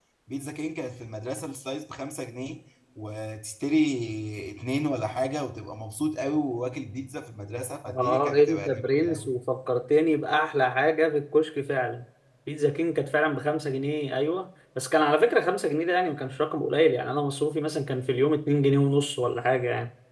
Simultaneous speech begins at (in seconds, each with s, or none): 7.8 s